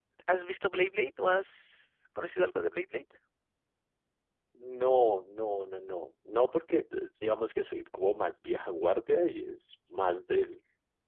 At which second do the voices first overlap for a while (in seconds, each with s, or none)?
none